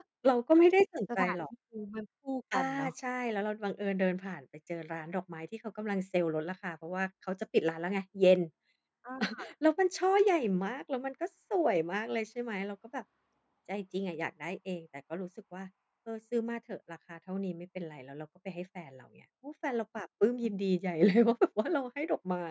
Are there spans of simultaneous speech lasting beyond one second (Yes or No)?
No